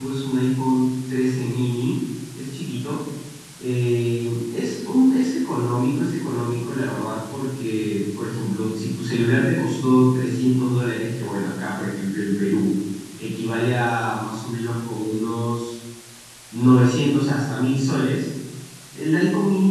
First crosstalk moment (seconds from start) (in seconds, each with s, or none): none